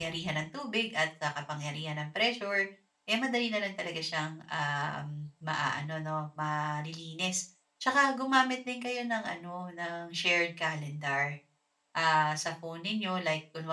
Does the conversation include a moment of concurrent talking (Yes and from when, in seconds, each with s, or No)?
No